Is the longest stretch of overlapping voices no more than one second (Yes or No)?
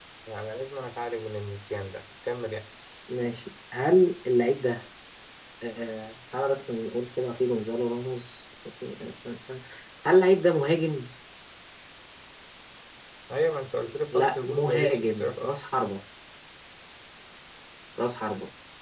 No